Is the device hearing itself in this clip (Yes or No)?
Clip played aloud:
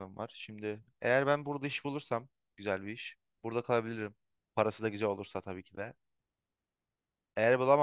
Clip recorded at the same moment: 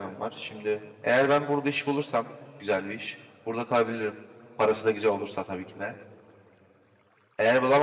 Yes